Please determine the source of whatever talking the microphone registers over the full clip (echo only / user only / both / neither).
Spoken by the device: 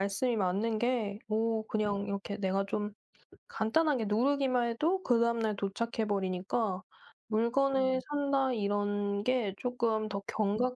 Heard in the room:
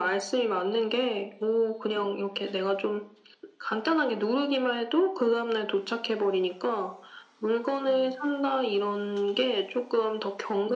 echo only